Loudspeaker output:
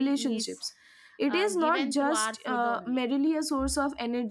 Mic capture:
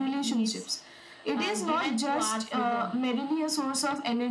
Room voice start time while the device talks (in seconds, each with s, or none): none